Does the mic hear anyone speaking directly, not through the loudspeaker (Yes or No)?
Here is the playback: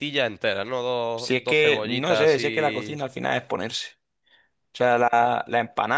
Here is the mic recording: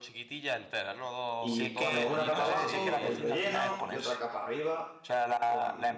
Yes